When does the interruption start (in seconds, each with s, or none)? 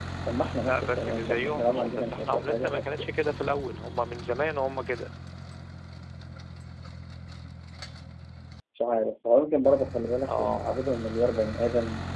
0.6 s